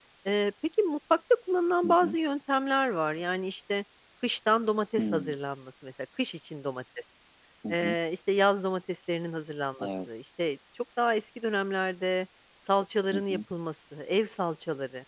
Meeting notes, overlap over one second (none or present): none